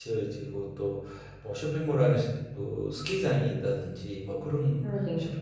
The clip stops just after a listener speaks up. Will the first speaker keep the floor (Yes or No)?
Yes